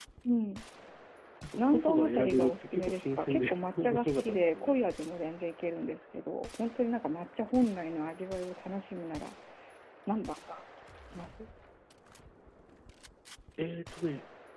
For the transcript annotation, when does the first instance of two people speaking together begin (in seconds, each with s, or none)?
1.6 s